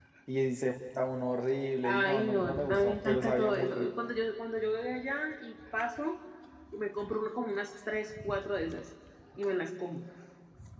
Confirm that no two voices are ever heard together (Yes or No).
No